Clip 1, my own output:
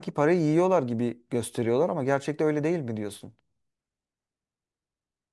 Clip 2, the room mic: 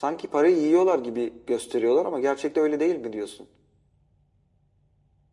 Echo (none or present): present